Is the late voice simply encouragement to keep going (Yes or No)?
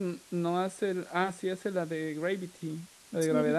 No